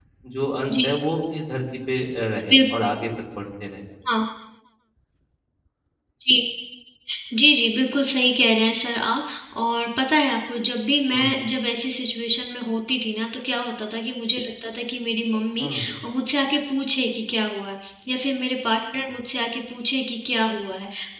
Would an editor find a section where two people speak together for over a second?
No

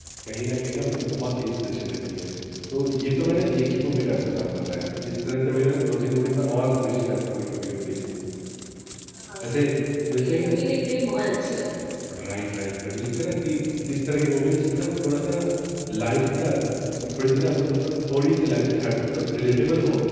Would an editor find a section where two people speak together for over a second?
No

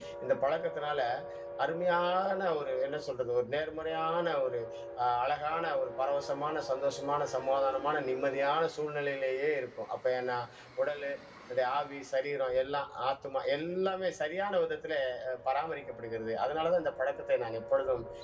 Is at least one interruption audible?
No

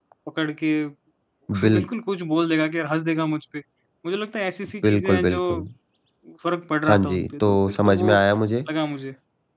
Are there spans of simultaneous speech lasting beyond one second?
Yes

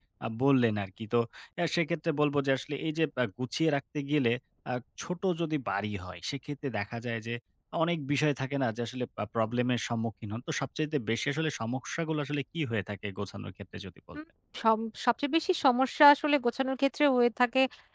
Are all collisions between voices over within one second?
Yes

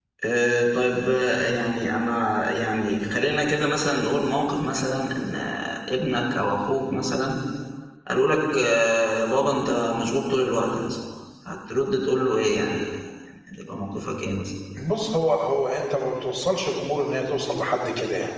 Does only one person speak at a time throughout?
Yes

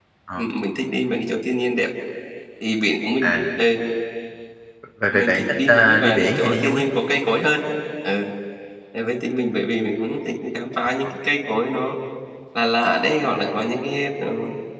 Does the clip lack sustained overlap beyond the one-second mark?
No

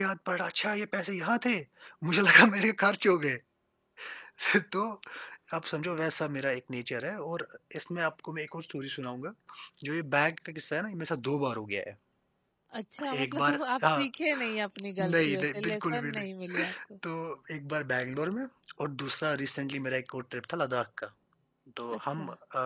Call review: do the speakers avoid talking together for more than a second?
No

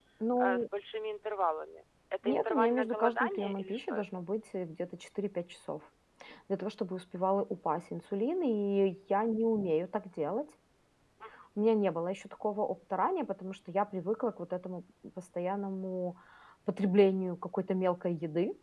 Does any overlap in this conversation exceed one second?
Yes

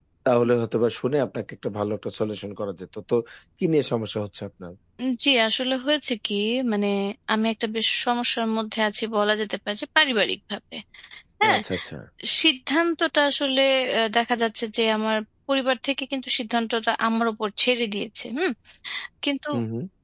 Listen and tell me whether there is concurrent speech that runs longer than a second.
No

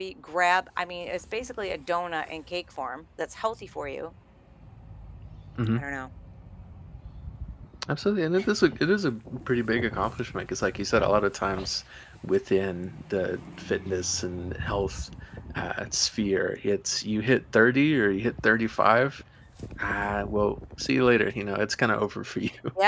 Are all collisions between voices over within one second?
Yes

